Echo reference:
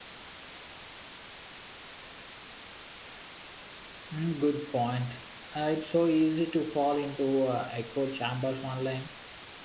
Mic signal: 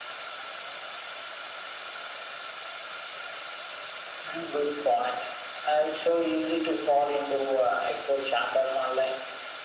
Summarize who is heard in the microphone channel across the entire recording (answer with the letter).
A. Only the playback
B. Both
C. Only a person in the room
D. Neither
A